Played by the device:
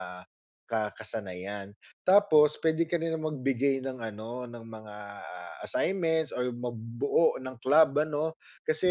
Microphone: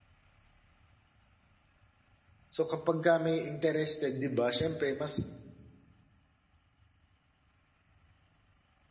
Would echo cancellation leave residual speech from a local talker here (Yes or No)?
Yes